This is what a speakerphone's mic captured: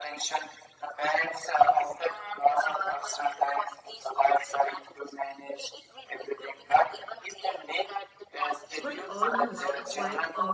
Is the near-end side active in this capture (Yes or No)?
Yes